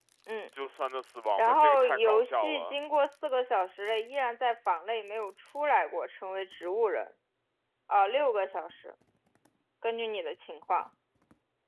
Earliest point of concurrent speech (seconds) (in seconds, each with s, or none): 1.4 s